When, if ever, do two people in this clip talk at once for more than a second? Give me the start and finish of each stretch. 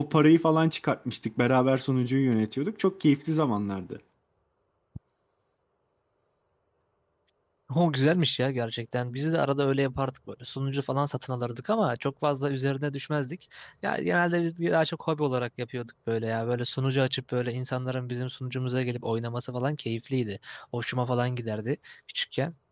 none

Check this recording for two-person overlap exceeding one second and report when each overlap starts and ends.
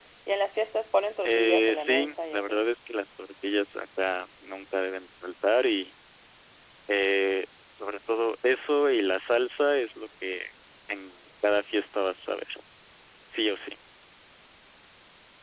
1.2-2.6

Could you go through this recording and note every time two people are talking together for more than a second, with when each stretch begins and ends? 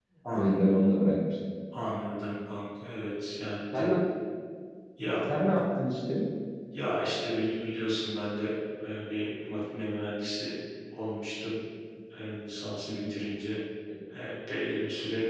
none

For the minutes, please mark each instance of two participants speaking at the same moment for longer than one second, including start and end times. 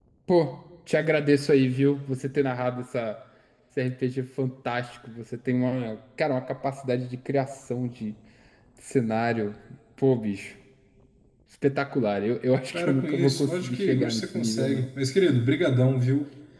12.7-14.9

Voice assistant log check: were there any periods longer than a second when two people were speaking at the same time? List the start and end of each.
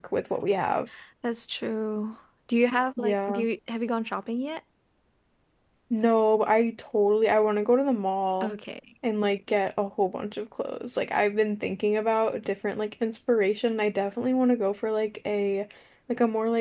none

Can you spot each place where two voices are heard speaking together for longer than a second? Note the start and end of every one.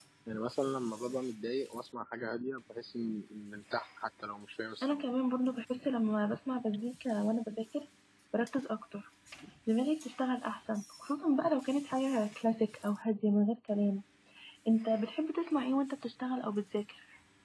none

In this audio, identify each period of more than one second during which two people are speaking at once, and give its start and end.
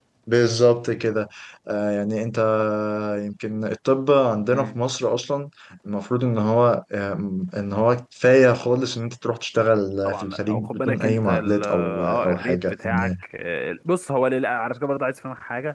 10.1-13.1

